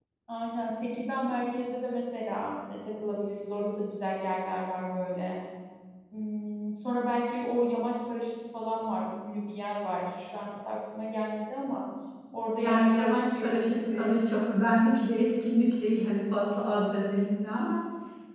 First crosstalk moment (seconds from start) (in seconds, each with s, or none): 12.6 s